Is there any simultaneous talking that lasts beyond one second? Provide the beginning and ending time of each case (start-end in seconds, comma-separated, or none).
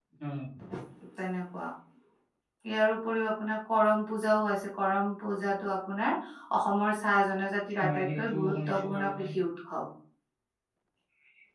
7.8-9.3